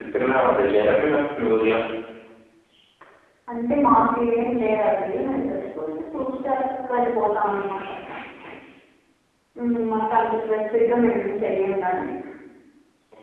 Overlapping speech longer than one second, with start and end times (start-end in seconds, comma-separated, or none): none